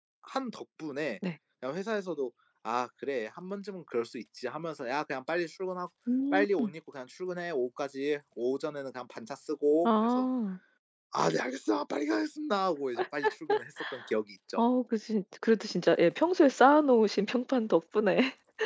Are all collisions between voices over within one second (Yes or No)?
Yes